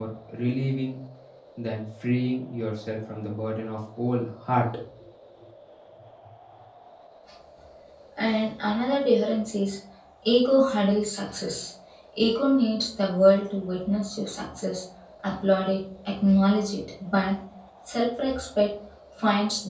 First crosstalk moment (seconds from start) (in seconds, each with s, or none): none